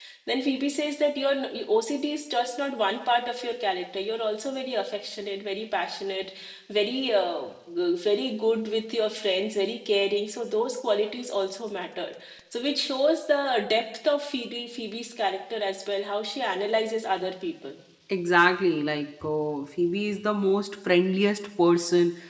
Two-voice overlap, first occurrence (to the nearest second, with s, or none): none